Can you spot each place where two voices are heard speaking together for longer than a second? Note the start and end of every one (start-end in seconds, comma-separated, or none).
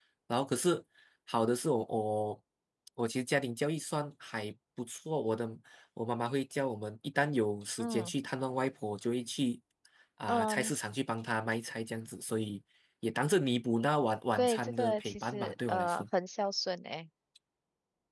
14.4-16.1